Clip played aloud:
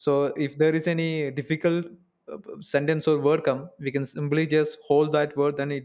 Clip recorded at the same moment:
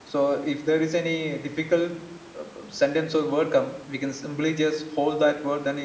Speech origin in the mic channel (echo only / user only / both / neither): echo only